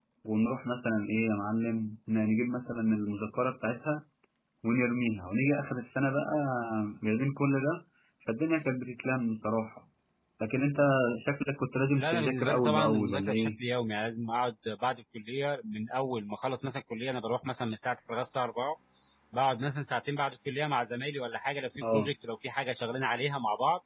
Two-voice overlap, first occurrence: 12.0 s

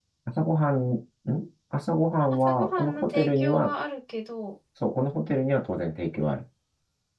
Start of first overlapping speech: 2.3 s

